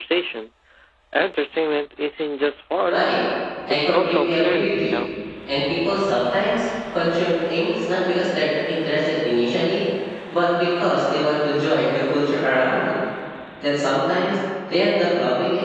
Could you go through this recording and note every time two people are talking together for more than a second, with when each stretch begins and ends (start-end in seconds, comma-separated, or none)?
3.7-5.0